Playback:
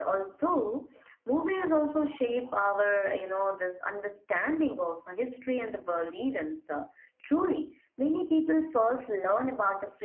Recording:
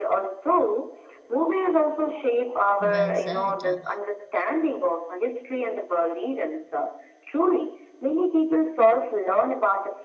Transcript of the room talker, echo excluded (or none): Well said. Uh,